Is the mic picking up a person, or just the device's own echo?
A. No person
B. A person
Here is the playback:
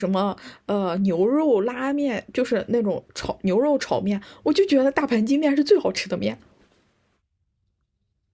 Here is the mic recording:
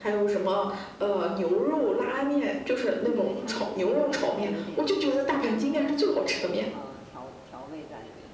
B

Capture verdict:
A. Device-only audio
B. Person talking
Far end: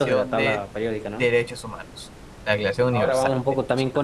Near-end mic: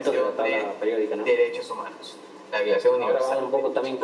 A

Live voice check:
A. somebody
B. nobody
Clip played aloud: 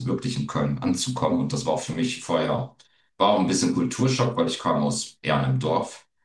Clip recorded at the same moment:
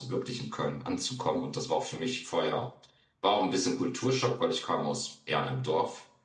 B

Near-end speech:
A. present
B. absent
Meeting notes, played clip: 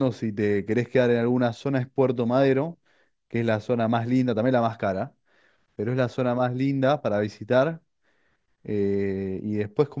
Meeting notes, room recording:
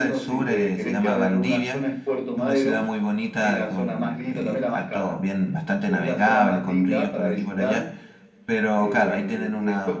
A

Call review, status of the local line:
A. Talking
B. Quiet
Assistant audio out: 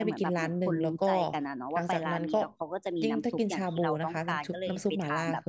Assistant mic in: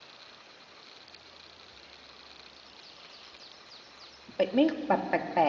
A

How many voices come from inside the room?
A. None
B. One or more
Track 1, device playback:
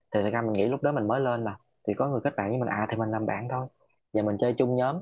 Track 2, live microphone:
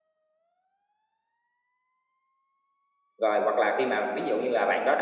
B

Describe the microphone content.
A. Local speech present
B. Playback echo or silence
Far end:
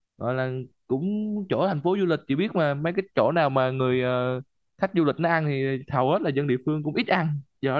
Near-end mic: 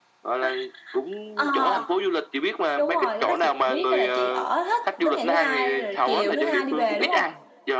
A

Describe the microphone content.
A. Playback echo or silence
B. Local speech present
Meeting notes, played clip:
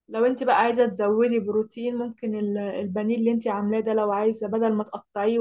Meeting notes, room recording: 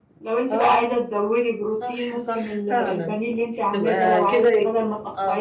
B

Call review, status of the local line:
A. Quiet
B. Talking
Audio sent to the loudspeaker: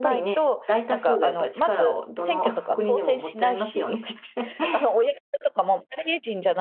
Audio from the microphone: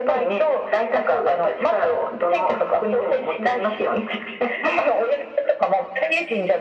A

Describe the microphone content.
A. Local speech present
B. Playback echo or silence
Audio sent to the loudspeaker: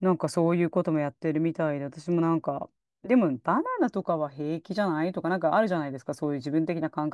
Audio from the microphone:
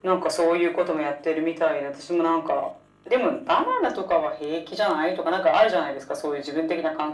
B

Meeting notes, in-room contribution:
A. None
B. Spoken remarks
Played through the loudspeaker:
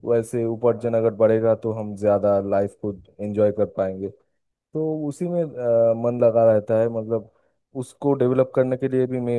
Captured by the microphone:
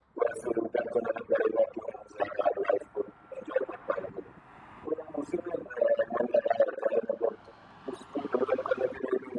A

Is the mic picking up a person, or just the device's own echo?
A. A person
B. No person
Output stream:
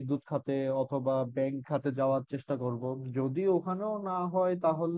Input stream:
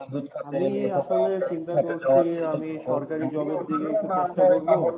A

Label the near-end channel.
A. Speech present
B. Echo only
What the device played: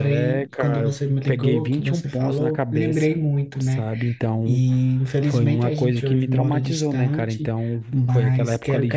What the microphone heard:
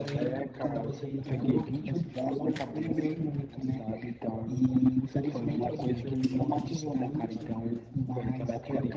A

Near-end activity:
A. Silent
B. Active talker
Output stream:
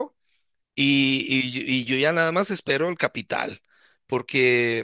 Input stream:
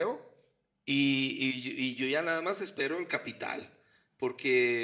A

